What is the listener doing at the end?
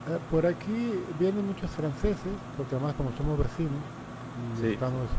listening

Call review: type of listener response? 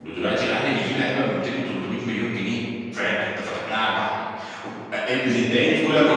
taking over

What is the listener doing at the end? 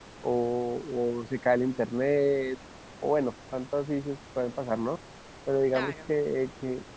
listening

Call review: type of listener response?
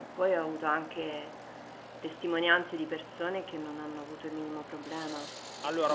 taking over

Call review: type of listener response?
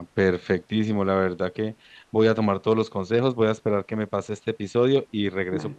listening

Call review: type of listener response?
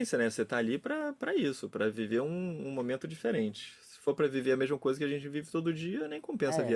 taking over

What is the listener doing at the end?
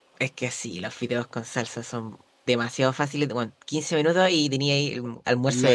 taking over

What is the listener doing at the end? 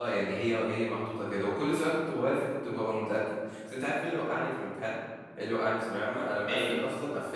listening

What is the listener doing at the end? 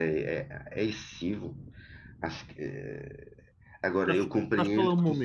taking over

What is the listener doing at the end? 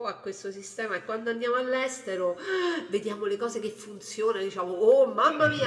listening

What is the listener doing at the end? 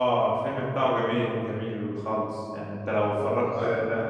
listening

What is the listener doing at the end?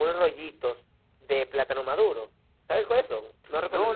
taking over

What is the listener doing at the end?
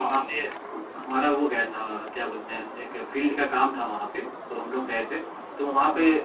listening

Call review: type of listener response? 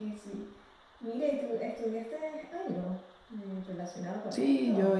taking over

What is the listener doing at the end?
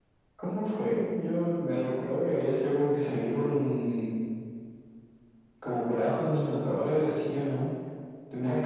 taking over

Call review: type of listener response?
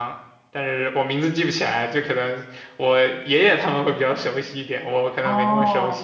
taking over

